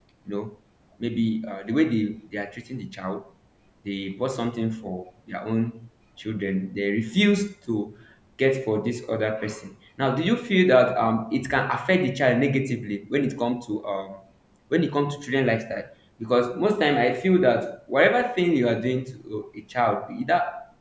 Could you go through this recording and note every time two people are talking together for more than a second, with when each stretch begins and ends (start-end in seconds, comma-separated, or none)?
none